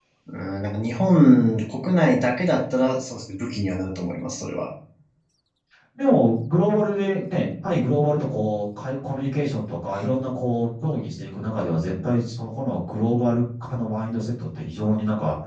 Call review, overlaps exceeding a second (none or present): none